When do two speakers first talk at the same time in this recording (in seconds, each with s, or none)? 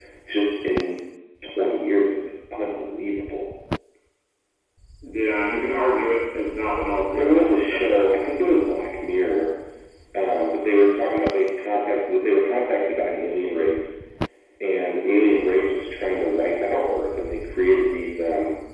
7.2 s